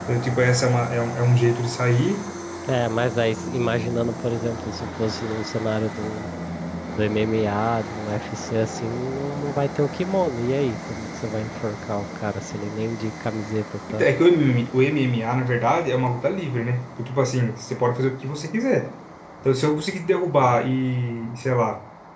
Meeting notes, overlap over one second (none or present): none